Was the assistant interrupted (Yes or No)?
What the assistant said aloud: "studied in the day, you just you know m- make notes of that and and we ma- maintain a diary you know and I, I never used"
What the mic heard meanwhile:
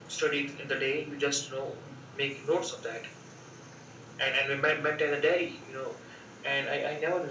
No